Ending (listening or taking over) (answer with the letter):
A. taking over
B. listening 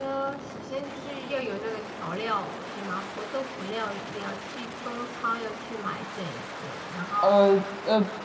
A